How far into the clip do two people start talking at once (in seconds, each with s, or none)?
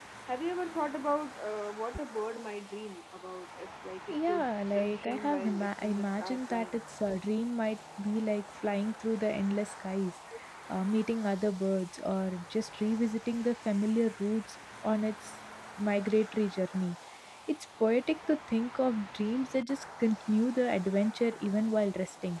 4.1 s